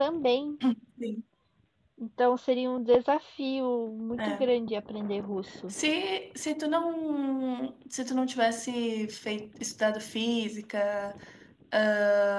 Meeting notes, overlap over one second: none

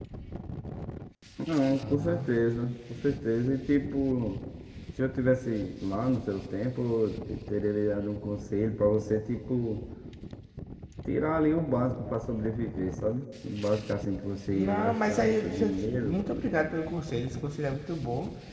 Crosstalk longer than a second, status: present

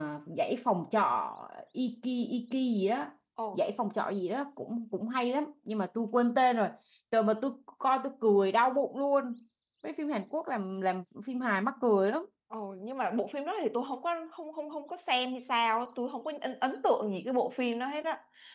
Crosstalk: none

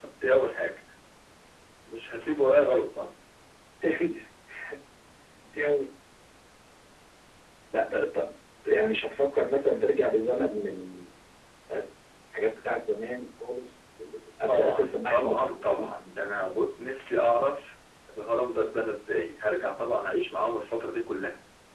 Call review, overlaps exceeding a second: present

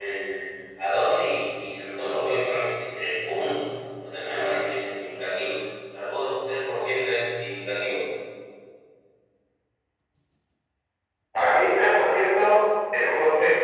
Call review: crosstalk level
none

